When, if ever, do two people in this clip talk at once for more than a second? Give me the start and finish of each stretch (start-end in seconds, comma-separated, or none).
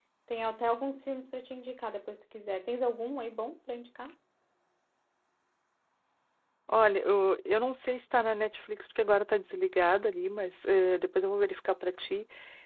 none